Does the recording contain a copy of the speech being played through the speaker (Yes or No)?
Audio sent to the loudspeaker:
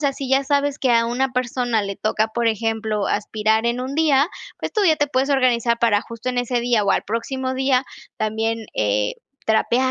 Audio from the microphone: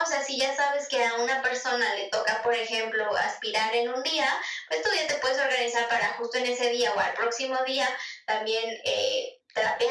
Yes